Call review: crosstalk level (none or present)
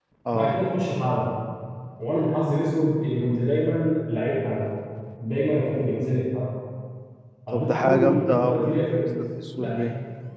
present